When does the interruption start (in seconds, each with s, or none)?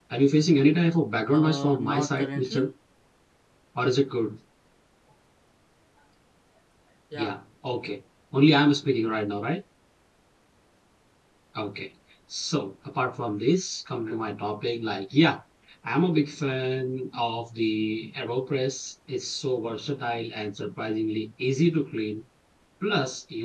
1.3 s